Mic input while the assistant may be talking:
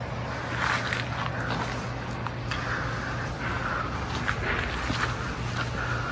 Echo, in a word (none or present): none